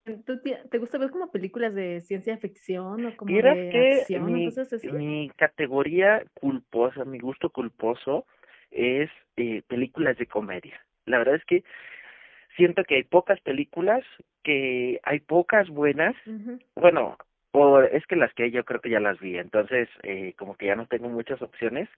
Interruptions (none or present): present